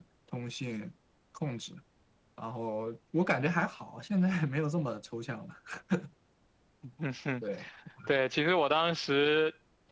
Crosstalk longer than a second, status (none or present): none